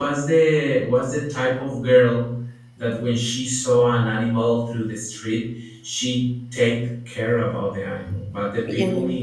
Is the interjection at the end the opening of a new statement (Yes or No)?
No